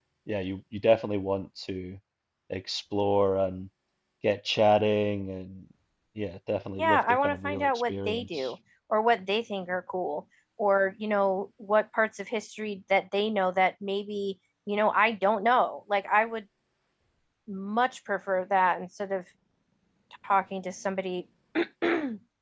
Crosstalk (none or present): present